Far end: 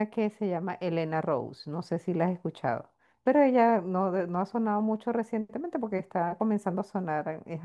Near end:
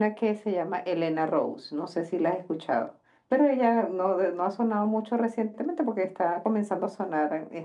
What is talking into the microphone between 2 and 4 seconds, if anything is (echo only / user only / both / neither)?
echo only